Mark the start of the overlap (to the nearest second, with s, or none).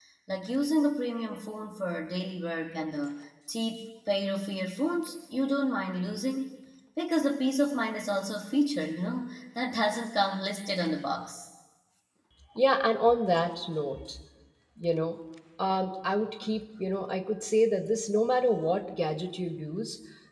none